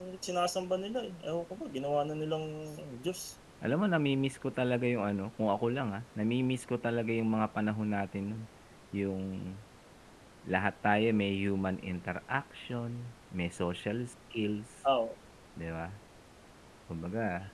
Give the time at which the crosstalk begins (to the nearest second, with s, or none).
none